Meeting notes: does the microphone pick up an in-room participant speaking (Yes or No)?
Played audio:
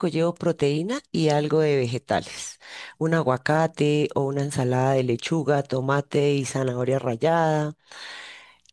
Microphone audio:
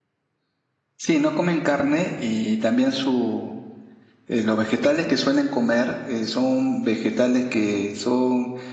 Yes